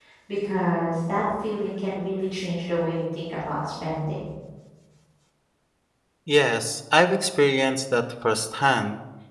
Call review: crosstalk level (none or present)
none